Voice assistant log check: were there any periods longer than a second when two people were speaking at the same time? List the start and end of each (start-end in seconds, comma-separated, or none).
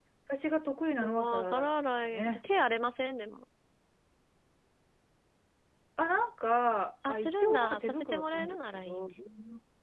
1.0-2.4, 7.1-9.1